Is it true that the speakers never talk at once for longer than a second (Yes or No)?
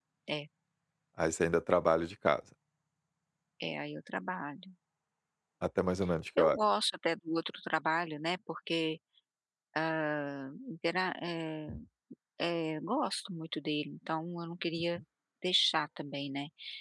Yes